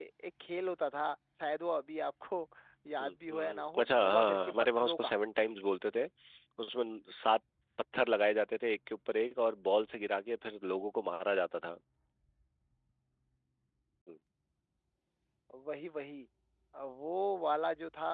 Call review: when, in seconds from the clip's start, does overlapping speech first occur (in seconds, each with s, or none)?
3.0 s